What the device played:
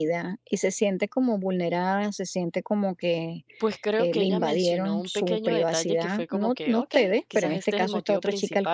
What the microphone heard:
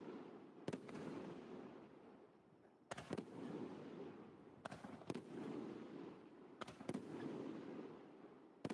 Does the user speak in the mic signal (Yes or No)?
No